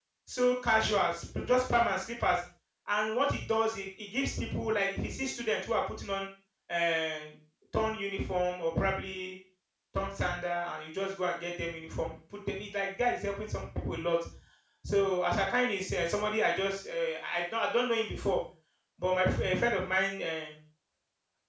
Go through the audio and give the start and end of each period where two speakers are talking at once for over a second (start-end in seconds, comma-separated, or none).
none